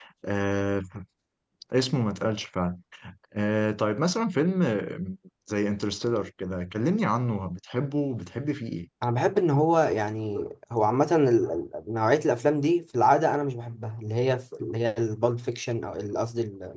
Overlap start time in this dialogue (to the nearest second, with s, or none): none